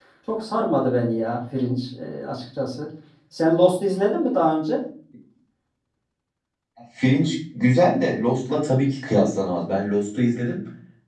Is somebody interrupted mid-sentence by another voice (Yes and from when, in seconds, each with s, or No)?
No